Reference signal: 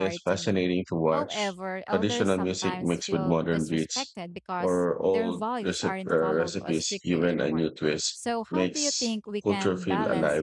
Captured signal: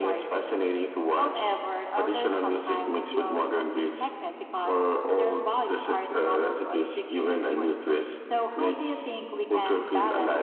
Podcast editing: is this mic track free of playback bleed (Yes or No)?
No